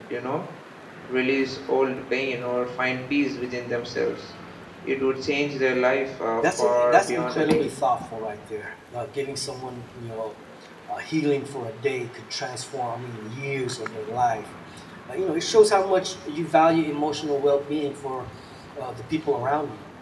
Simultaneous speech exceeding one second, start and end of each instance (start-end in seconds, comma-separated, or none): 6.4-7.7